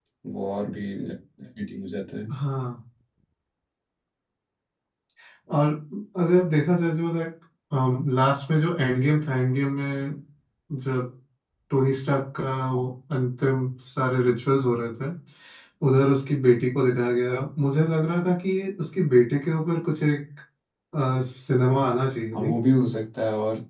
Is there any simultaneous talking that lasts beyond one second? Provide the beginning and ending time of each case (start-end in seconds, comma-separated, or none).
none